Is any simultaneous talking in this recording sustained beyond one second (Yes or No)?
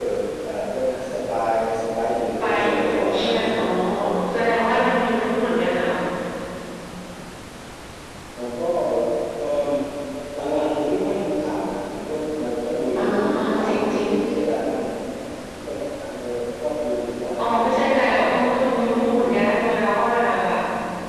Yes